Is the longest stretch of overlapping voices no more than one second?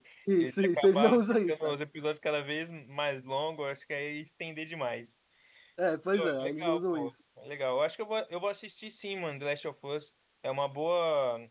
No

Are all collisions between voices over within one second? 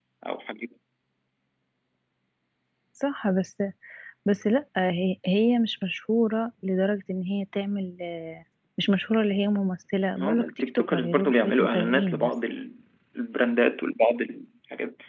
No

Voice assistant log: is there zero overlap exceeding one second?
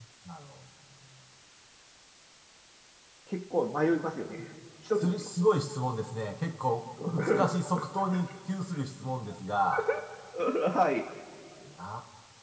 Yes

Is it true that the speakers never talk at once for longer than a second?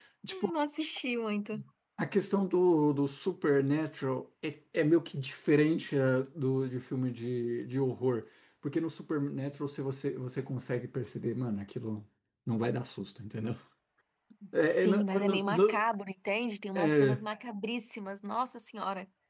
No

